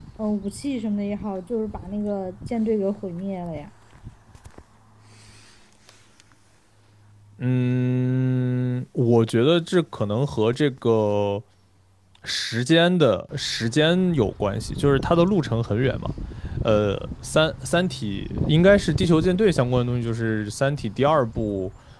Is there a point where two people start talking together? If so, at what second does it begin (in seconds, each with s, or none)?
none